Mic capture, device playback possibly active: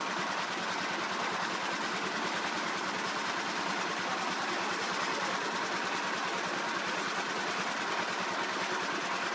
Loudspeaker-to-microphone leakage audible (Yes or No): No